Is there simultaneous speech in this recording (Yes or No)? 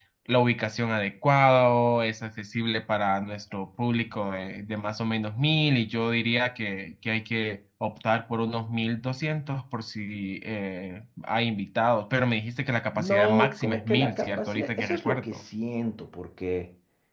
Yes